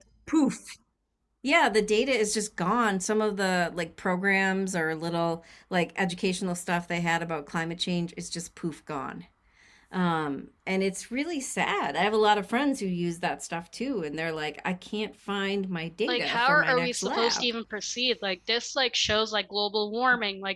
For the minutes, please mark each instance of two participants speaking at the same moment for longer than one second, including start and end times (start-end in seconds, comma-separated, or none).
16.1-17.5